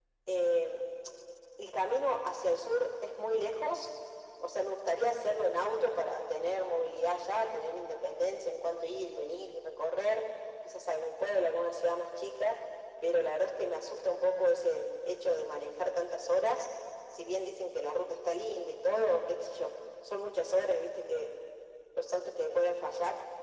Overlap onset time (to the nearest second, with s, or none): none